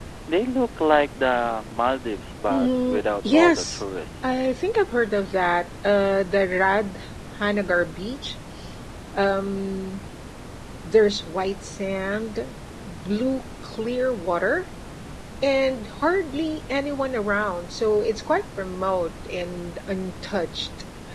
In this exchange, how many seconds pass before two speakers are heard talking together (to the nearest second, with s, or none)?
2 s